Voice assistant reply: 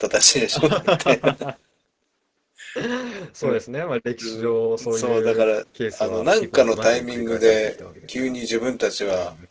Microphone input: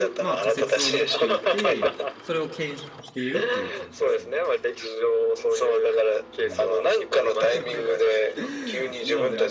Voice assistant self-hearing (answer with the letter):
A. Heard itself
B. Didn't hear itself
A